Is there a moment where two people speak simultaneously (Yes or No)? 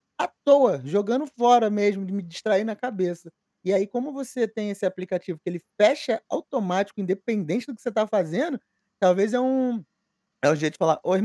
No